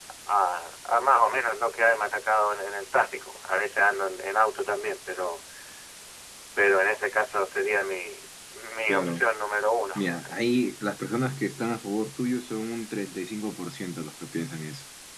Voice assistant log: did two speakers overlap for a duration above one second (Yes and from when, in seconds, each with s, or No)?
No